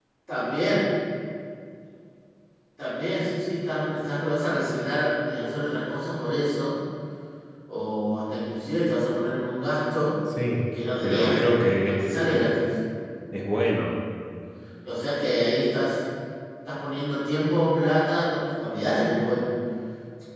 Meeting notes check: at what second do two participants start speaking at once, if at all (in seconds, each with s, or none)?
11.0 s